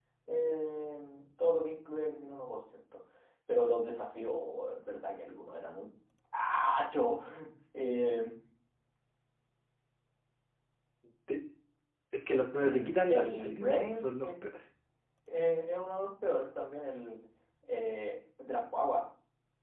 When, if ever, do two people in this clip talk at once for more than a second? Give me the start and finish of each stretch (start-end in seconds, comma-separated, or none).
12.6-14.3